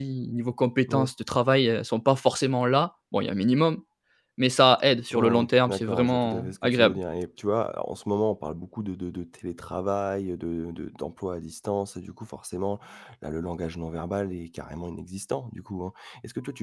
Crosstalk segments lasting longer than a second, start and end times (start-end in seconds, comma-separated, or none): 5.1-7.0